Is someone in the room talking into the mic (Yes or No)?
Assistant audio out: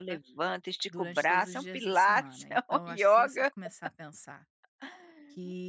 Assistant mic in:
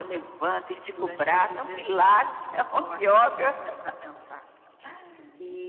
No